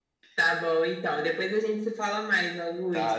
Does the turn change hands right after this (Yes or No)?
Yes